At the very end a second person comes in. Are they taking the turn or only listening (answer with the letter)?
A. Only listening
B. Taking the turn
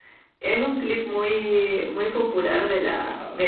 A